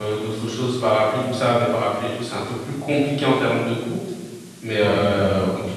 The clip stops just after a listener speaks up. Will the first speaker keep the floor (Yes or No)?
Yes